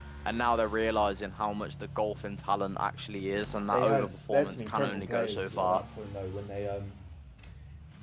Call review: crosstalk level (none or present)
present